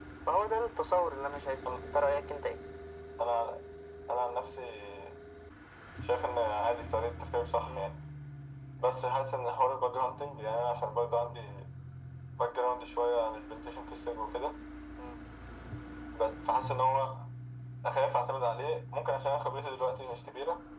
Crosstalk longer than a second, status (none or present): none